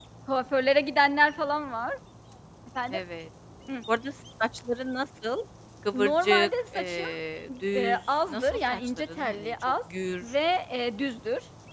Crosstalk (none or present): present